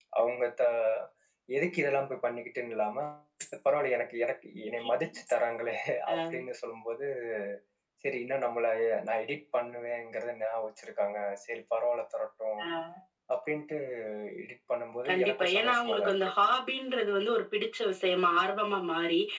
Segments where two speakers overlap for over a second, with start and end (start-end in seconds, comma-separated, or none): 15.1-16.3